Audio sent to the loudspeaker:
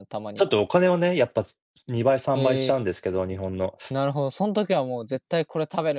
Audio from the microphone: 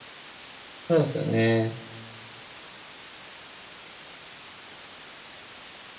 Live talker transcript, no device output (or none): そうですよね。